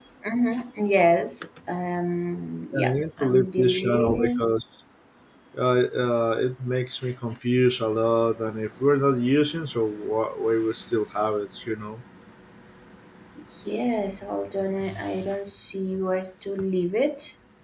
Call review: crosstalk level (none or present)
present